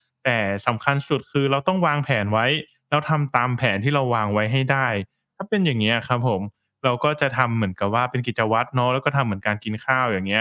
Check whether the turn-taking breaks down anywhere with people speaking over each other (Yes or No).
No